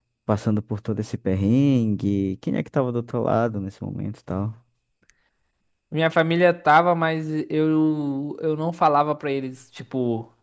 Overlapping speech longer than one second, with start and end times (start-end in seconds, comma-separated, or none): none